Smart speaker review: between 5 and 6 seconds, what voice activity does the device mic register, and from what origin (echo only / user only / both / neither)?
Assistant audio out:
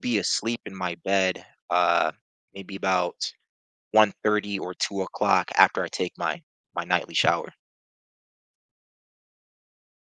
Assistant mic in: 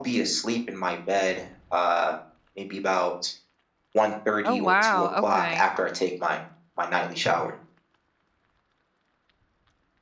both